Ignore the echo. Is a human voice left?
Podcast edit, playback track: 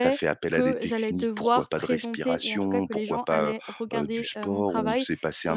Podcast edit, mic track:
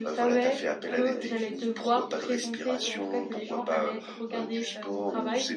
Yes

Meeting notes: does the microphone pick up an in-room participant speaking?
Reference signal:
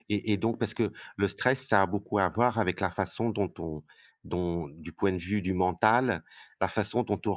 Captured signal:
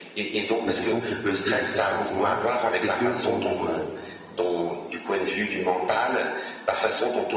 Yes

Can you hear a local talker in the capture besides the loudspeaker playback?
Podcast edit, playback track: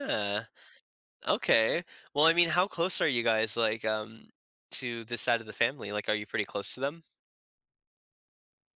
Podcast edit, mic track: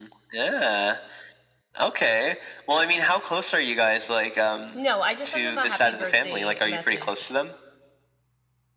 Yes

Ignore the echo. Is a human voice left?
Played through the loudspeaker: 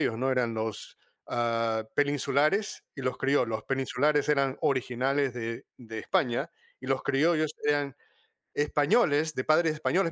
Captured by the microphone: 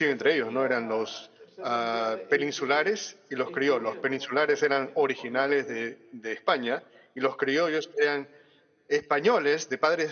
Yes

